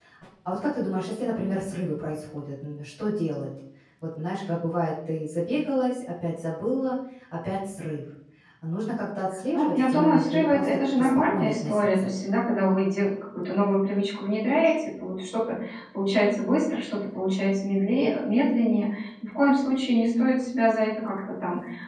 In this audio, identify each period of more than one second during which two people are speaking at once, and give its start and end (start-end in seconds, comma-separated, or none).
9.5-12.1